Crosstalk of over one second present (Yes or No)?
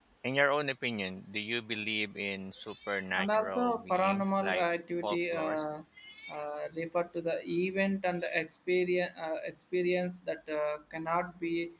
Yes